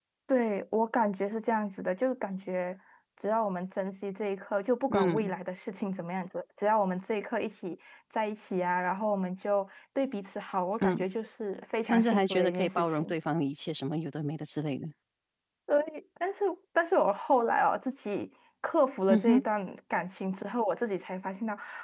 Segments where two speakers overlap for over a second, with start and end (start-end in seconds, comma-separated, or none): 11.8-13.1